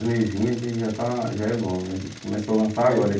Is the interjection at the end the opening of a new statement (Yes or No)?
No